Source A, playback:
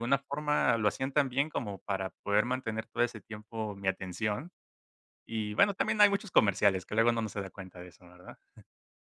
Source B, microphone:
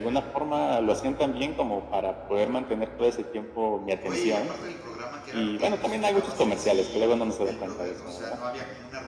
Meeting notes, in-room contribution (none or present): present